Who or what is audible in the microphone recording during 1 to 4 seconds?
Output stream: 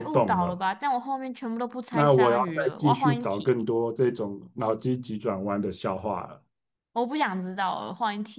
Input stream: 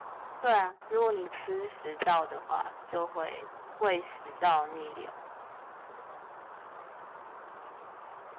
user only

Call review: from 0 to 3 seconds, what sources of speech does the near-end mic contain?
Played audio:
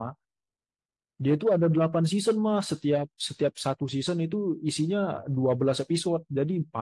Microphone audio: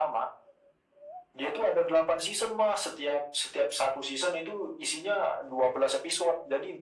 echo only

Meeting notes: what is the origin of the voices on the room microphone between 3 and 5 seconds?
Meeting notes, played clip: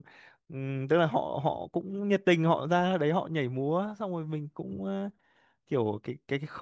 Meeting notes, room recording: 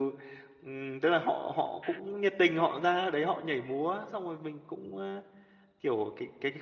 echo only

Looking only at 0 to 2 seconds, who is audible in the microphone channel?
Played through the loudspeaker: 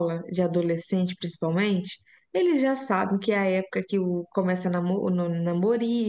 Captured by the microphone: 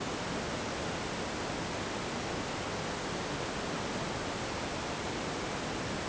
neither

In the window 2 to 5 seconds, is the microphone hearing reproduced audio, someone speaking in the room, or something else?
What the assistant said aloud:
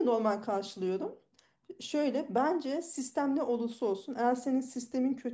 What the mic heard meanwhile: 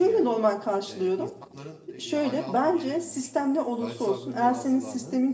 both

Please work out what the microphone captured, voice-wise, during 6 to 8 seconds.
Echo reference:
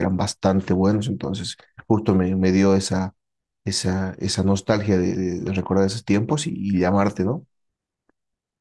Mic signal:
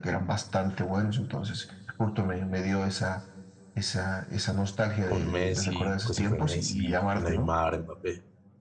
both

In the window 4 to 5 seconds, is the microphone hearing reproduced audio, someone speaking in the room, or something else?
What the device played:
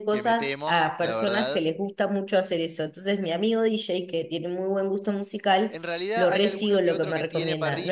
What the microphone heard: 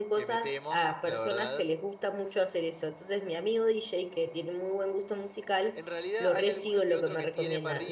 echo only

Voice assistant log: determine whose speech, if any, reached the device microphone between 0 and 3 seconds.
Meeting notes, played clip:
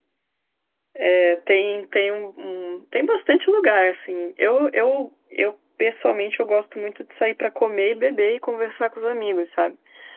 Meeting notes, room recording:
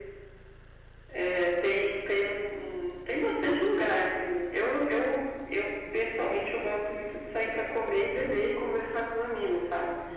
echo only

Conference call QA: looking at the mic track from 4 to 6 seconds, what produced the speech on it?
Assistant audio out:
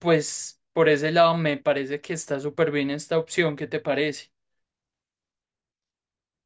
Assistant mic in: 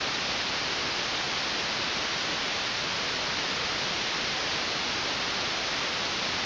neither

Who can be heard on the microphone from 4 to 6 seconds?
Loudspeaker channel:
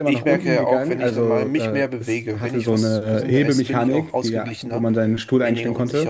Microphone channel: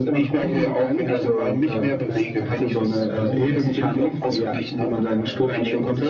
both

